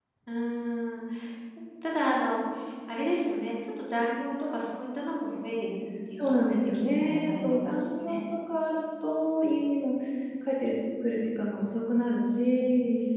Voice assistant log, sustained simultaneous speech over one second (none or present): present